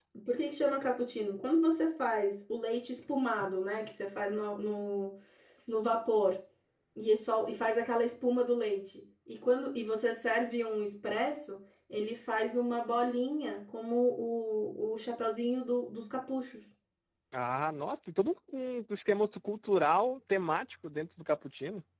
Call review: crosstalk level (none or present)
none